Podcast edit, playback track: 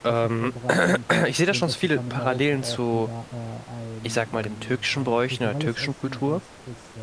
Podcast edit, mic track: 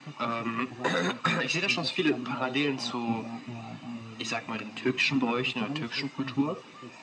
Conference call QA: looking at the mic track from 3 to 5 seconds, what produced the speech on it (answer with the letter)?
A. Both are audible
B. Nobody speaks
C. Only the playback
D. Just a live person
C